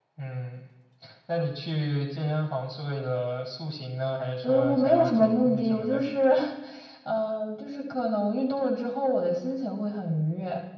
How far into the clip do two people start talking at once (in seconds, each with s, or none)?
4.4 s